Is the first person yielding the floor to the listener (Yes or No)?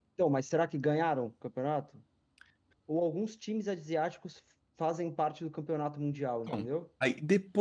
Yes